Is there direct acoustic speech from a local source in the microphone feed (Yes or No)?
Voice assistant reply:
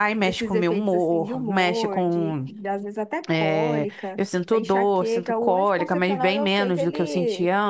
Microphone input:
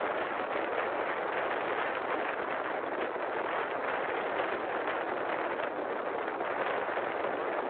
No